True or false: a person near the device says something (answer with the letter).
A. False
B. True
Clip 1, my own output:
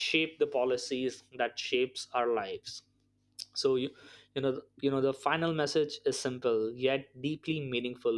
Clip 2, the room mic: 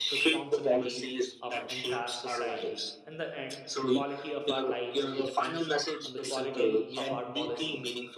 B